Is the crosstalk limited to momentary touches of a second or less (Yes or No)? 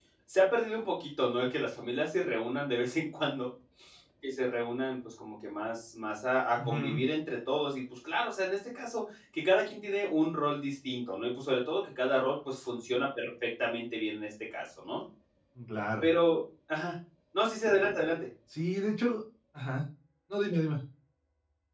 Yes